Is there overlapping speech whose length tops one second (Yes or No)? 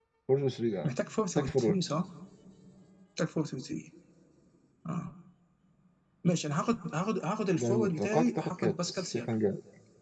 Yes